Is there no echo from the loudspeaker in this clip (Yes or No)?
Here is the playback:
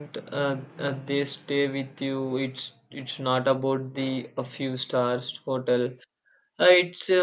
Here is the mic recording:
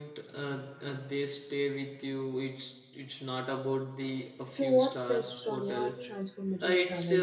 No